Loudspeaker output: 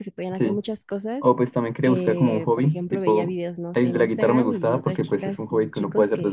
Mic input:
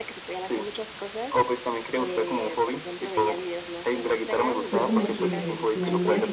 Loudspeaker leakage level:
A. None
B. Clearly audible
B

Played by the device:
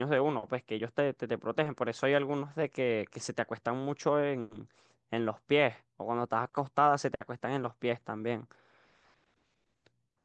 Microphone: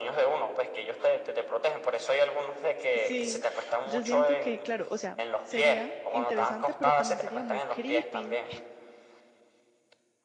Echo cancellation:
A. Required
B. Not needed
A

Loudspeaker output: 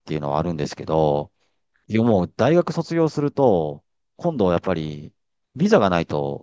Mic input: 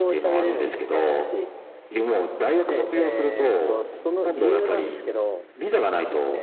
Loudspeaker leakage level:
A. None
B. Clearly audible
B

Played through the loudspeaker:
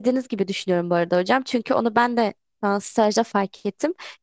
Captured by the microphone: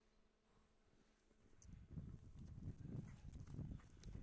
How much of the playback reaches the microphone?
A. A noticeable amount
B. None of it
B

